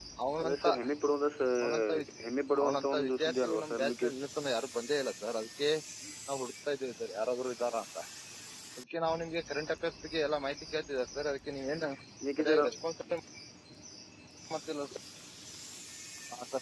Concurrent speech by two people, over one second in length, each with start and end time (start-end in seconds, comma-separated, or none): 2.6-4.3